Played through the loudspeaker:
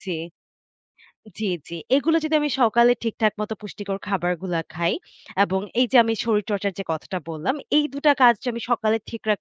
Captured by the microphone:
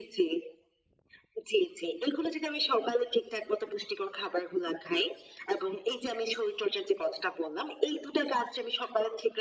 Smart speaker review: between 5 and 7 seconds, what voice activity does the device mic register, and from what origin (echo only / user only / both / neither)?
echo only